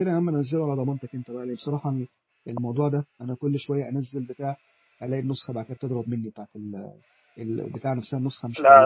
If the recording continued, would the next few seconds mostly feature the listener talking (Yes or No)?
Yes